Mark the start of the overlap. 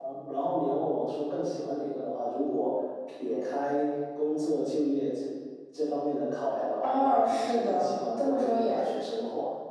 6.8 s

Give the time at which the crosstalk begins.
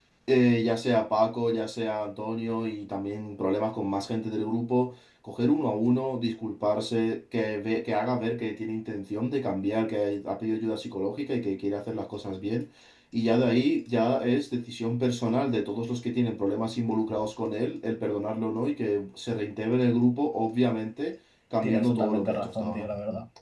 21.6 s

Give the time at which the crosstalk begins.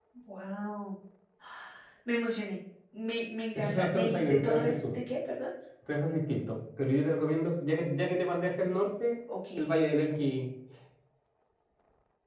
3.5 s

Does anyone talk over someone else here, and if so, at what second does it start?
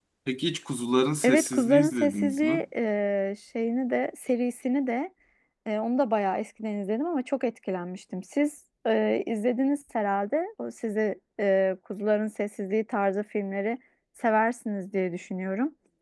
1.2 s

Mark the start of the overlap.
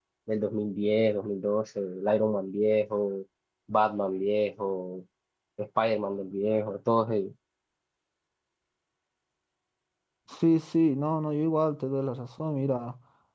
none

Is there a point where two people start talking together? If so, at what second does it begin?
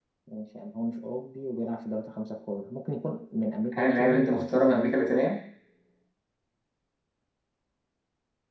3.7 s

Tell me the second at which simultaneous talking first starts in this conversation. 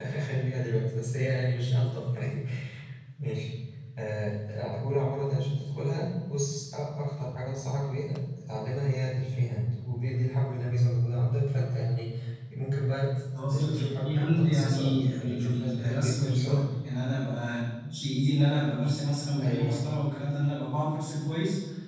13.5 s

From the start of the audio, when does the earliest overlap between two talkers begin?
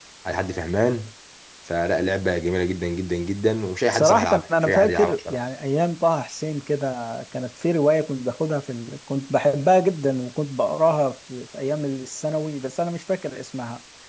3.9 s

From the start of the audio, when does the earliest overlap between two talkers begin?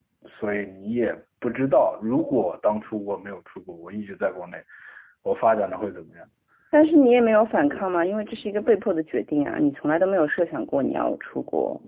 none

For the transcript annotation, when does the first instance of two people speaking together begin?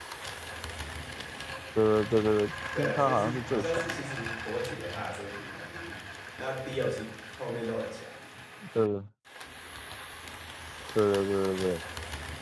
2.8 s

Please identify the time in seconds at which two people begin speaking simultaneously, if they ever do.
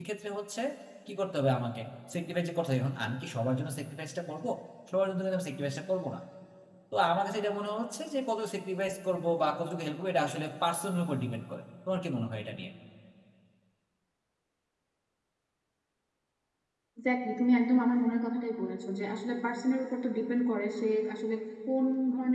none

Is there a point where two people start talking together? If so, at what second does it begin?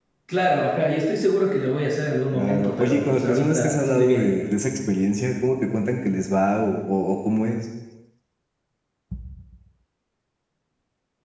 2.3 s

